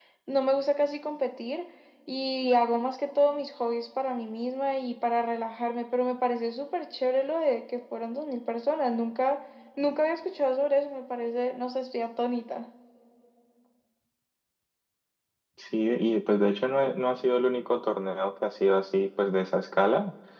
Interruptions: none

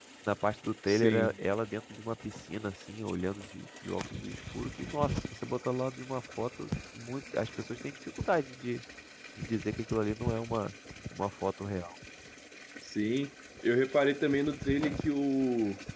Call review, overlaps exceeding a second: none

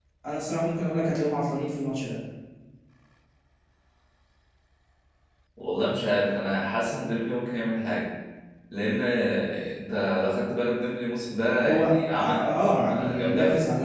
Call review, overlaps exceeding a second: present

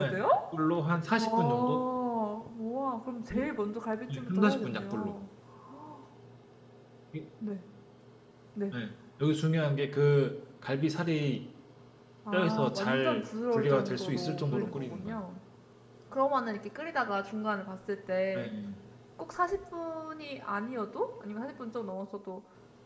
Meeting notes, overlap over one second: present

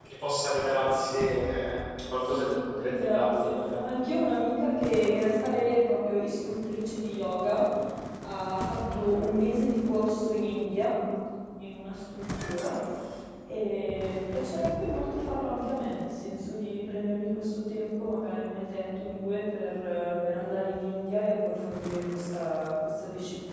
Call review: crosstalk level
present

